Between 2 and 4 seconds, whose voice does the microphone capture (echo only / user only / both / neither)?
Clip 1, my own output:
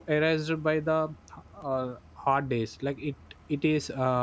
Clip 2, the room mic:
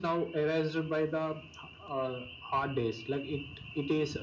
echo only